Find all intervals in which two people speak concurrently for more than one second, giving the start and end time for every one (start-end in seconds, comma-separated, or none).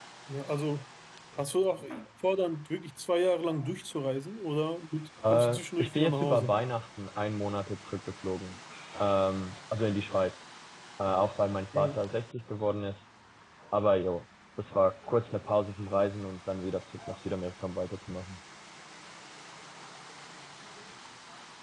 5.3-6.5